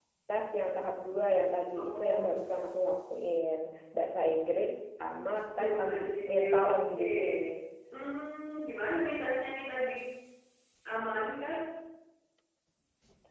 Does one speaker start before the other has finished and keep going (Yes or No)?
Yes